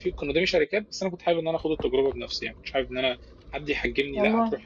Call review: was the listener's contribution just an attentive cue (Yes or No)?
Yes